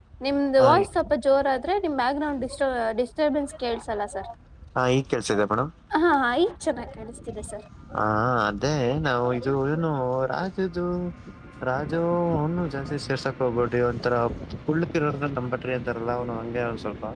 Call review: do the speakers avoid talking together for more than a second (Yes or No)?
Yes